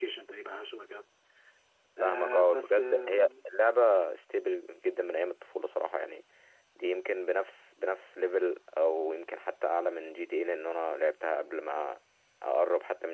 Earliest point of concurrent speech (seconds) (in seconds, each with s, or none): 2.0 s